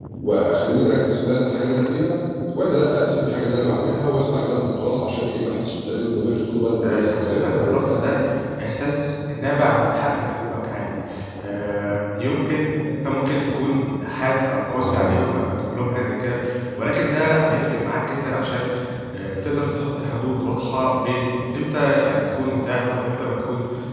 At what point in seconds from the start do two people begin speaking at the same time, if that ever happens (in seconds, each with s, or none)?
6.8 s